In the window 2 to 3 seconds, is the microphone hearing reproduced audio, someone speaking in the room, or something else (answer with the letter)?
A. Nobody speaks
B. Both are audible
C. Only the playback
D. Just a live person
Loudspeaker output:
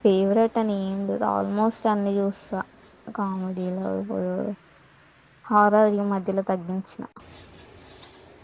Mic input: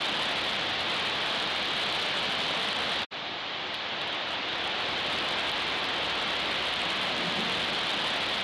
A